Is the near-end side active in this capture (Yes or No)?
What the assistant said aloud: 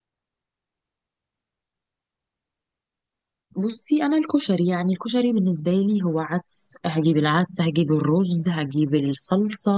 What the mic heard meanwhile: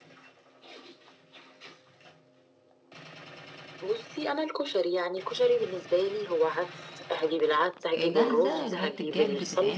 Yes